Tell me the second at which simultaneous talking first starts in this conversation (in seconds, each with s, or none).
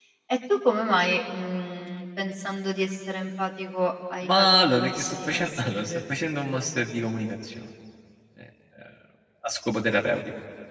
4.2 s